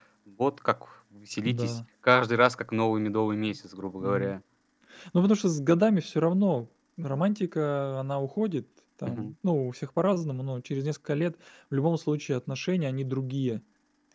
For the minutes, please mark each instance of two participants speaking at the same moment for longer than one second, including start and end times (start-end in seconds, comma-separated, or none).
none